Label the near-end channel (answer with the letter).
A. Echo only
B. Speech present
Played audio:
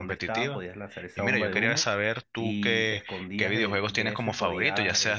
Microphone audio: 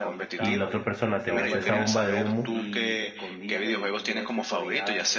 B